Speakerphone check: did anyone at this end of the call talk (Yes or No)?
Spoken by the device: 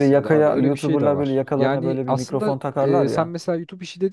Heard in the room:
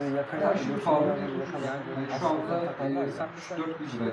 Yes